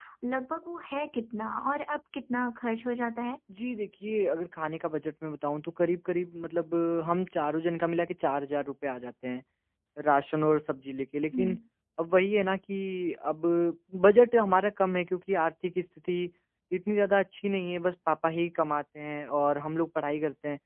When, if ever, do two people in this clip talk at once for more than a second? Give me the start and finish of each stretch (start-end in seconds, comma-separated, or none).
none